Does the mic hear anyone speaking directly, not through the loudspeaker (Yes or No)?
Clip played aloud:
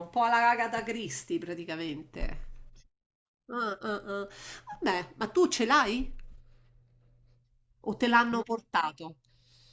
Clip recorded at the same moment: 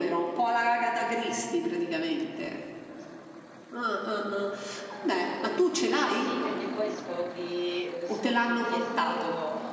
Yes